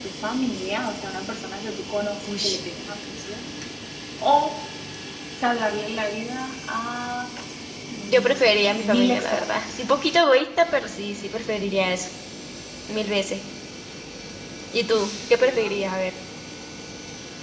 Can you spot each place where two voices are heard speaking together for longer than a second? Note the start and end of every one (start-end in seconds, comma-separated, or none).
8.1-9.8